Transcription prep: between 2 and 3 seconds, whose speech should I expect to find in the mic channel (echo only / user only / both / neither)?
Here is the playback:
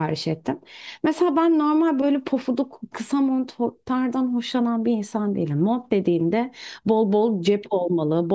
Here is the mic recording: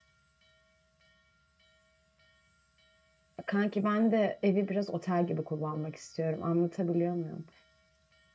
neither